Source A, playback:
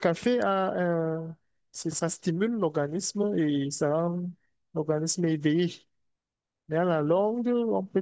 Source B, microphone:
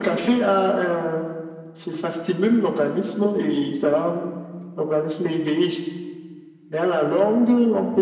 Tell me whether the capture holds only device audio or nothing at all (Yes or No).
Yes